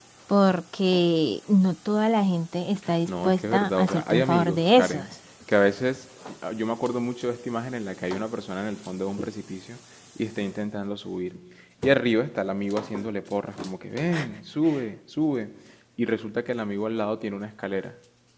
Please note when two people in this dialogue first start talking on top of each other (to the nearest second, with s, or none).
3 s